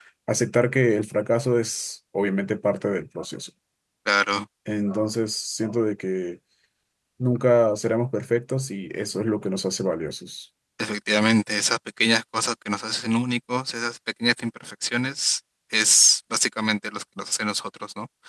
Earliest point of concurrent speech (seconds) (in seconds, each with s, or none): none